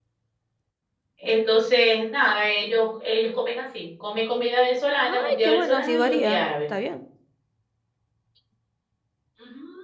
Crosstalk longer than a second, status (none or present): present